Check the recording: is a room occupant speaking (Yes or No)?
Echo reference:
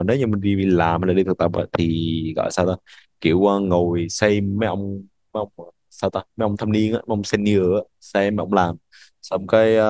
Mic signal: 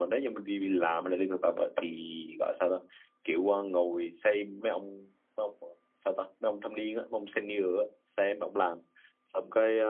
No